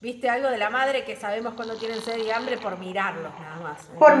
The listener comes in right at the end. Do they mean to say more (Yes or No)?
Yes